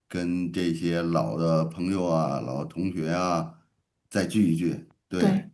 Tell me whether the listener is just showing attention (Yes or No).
Yes